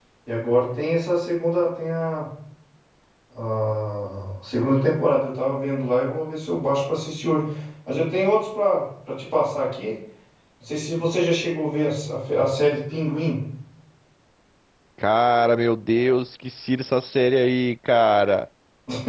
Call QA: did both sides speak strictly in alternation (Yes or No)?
Yes